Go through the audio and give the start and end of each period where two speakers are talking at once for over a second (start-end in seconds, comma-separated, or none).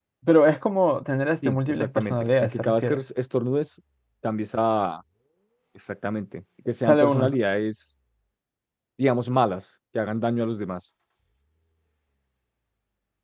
1.4-3.0